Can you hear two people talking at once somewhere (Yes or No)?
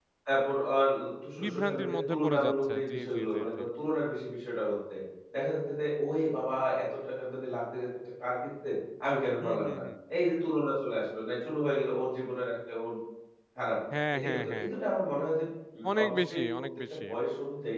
Yes